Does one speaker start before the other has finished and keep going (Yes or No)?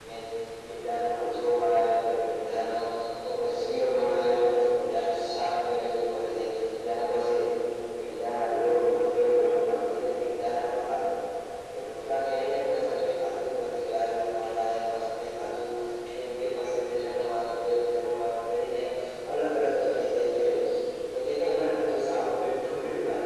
No